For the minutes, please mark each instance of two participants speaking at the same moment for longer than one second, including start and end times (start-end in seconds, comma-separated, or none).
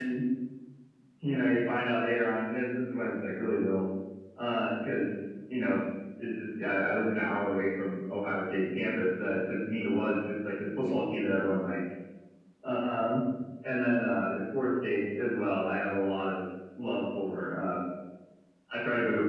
none